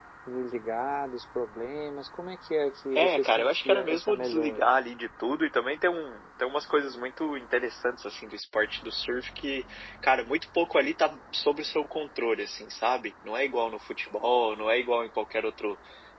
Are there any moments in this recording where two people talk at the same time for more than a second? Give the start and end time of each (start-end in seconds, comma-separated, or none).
3.0-4.7